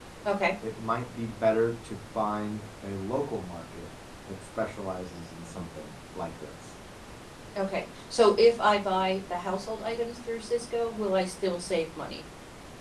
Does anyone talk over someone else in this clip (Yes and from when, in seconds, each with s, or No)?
No